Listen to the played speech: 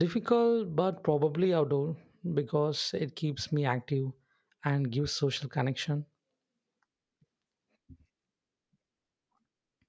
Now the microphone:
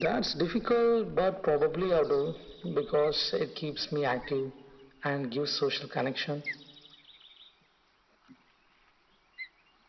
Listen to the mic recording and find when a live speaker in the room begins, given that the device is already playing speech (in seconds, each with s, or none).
none